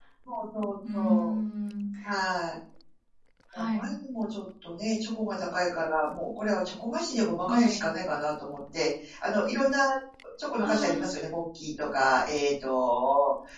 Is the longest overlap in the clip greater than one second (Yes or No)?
No